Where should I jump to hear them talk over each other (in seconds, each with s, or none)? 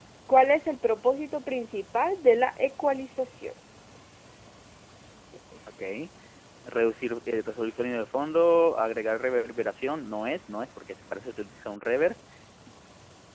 none